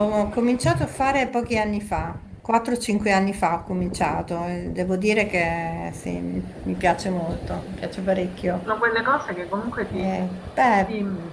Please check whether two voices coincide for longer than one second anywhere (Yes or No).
No